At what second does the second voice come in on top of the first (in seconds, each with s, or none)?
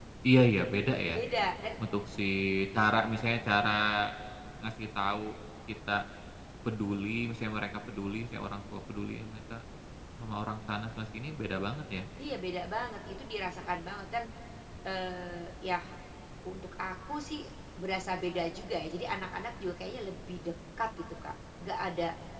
none